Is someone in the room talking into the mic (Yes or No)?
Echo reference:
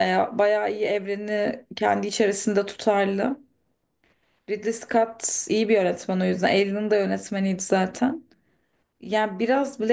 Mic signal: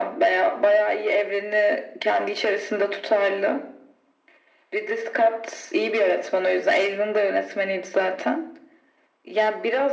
No